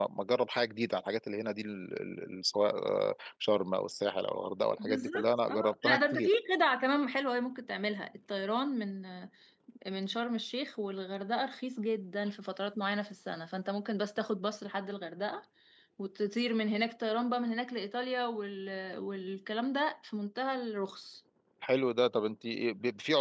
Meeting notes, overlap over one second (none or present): present